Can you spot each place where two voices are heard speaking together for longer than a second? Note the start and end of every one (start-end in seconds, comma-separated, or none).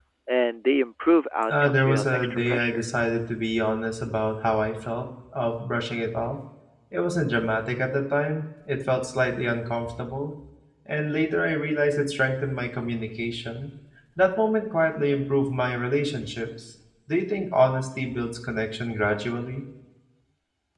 1.5-2.8